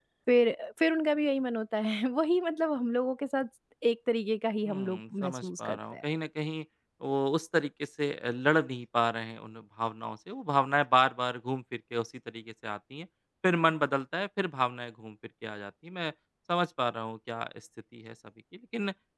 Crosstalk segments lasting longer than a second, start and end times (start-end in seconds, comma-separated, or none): 4.7-5.9